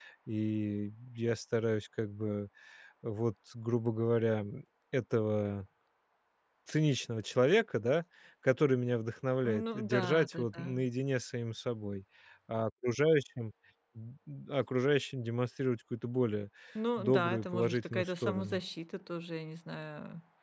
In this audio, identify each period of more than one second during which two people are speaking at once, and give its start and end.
9.4-10.8, 17.0-18.6

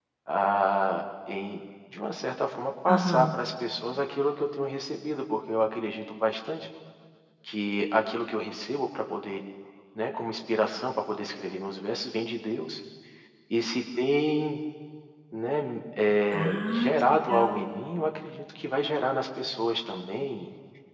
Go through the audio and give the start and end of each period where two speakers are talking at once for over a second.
16.3-17.6

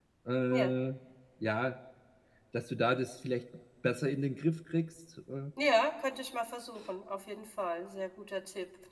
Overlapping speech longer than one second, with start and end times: none

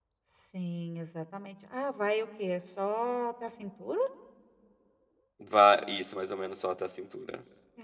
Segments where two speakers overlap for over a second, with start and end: none

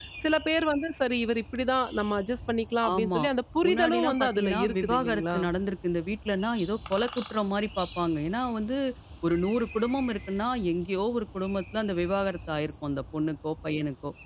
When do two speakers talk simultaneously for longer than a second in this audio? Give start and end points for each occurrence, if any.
3.6-5.4

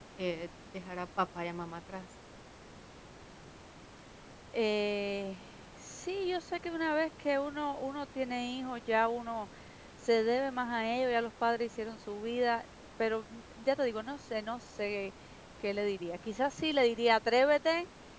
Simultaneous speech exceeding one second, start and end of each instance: none

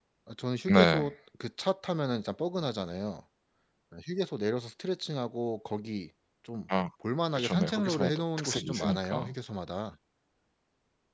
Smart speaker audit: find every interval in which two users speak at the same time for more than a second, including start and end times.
7.3-9.3

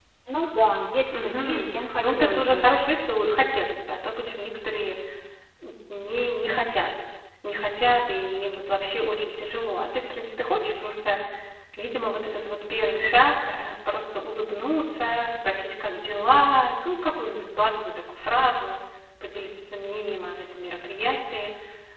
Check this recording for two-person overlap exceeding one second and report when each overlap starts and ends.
1.2-2.7

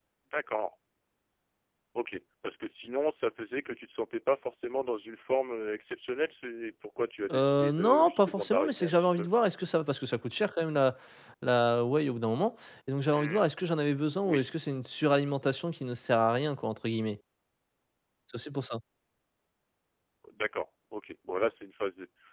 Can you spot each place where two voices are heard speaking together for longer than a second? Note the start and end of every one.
7.3-9.3

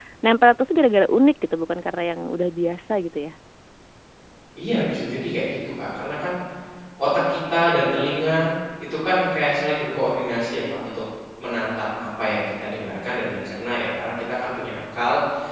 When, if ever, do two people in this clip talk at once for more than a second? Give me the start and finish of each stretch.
none

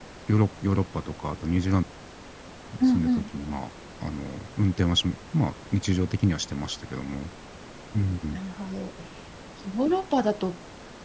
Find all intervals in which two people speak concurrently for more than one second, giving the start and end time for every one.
none

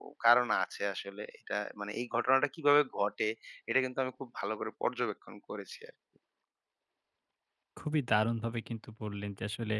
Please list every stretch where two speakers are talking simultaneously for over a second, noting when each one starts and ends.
none

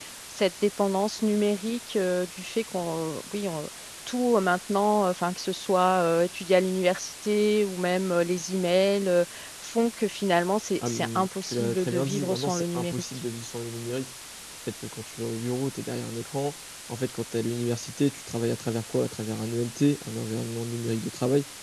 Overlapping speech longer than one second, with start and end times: 10.9-13.0

